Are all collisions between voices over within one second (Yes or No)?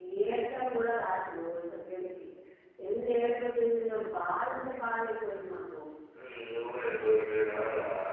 Yes